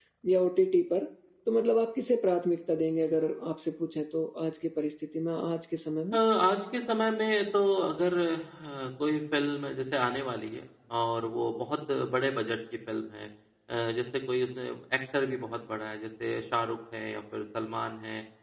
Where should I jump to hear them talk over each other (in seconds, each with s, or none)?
none